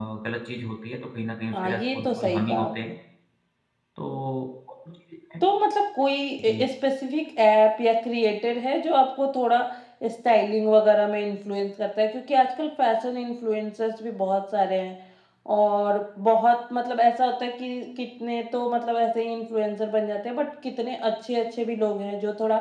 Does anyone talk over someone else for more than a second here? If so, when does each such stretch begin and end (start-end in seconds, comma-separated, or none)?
1.5-2.9